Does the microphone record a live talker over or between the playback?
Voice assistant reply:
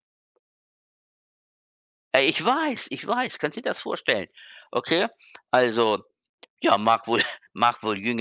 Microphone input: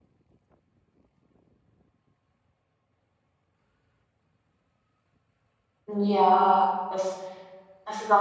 Yes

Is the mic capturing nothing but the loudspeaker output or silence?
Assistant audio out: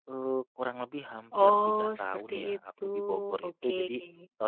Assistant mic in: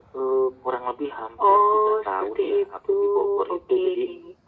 Yes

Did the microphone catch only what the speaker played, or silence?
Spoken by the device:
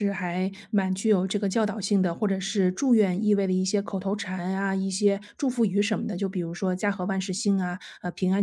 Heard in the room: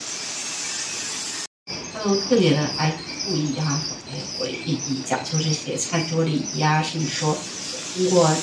No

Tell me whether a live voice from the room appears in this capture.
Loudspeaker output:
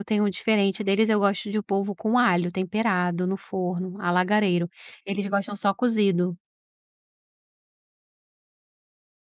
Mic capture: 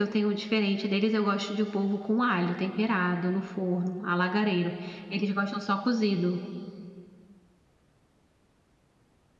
No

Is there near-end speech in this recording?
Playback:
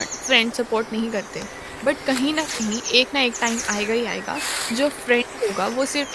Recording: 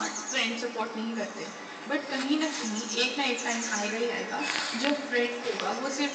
No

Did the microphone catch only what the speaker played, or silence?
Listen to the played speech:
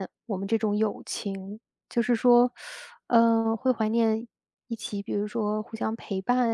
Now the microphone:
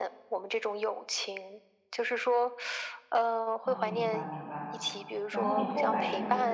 No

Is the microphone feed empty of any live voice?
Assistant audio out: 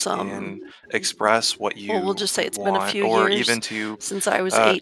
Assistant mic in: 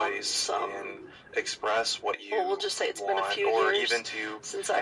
Yes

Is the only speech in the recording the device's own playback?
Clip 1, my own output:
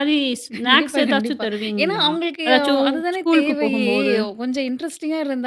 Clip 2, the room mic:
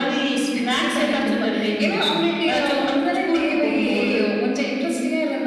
Yes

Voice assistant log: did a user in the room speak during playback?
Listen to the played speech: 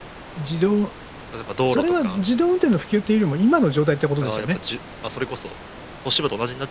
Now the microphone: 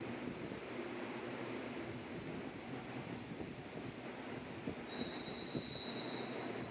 No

